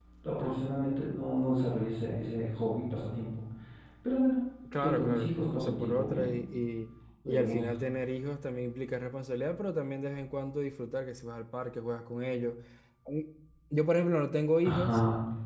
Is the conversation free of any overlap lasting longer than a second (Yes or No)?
No